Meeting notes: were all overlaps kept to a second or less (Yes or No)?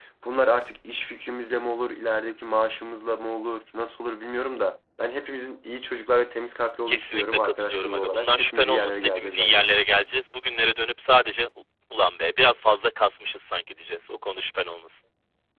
No